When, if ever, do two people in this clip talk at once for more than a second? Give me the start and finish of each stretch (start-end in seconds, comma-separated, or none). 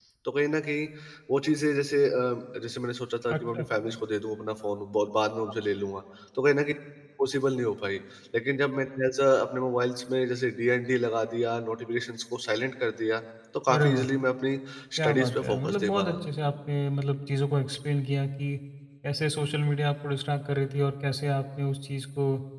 15.0-16.3